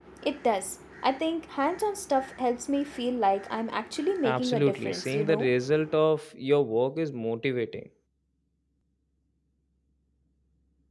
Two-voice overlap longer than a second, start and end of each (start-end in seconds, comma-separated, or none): 4.2-5.5